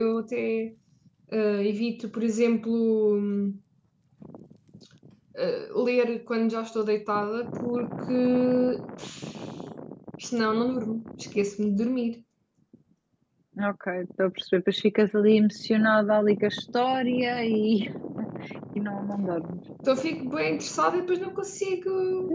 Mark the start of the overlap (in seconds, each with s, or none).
none